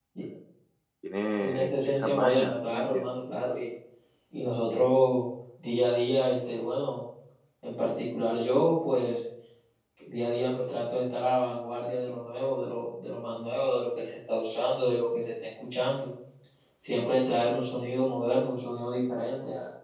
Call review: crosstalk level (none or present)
present